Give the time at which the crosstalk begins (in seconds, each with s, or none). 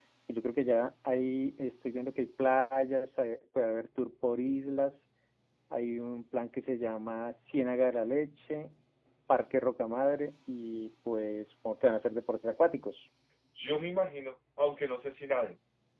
none